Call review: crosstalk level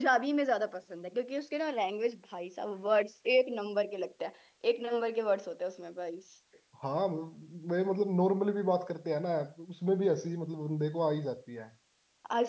none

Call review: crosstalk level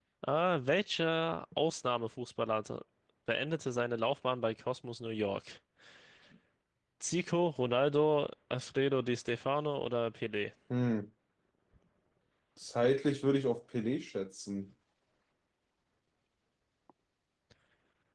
none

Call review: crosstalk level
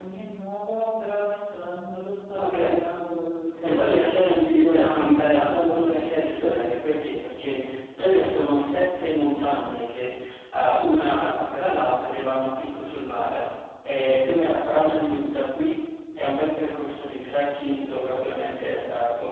present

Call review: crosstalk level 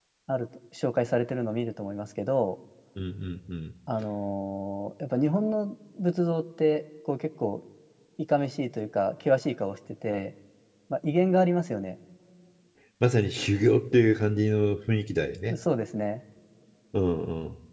none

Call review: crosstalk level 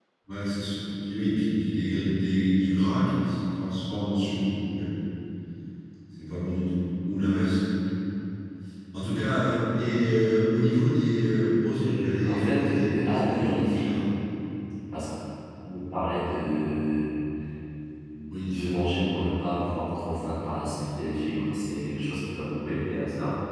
present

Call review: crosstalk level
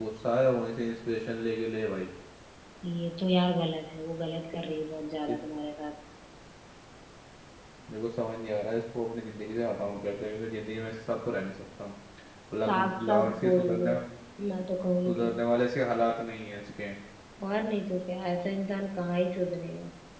present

